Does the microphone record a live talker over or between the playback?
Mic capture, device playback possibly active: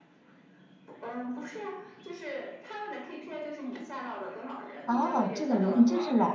Yes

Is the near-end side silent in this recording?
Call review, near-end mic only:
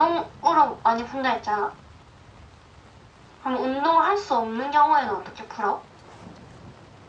Yes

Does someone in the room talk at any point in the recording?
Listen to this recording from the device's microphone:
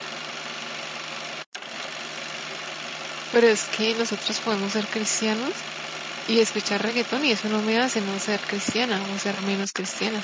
Yes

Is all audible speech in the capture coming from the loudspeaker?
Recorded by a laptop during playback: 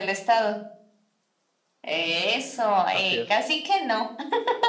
No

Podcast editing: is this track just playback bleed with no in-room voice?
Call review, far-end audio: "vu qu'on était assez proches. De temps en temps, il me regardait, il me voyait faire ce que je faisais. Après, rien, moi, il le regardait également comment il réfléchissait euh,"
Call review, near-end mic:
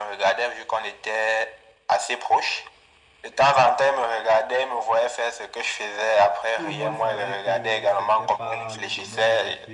No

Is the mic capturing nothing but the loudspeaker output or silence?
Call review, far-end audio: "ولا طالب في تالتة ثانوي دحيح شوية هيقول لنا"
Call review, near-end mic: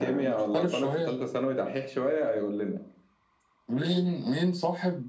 No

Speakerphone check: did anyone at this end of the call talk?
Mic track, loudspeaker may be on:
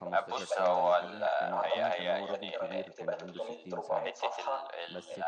Yes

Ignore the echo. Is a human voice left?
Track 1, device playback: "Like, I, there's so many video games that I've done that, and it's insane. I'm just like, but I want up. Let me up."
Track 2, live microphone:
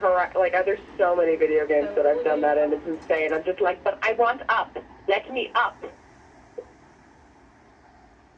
Yes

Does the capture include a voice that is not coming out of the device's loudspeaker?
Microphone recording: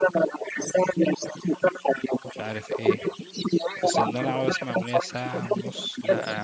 Yes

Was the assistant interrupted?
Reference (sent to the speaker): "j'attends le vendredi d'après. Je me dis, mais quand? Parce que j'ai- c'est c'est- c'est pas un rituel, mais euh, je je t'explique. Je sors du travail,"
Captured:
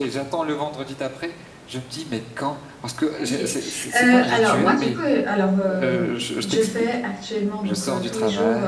Yes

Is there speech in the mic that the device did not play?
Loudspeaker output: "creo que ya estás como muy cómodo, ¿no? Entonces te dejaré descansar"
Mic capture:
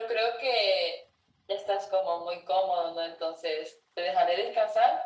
No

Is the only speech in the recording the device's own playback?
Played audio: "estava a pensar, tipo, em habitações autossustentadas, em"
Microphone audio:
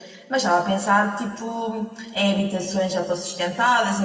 Yes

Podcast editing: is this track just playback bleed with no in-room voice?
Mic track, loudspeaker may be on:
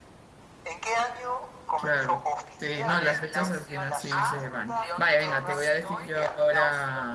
No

